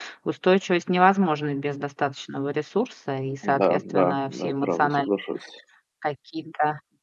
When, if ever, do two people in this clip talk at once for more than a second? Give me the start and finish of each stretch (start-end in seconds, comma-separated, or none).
3.6-5.1